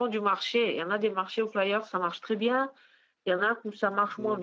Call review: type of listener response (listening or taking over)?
listening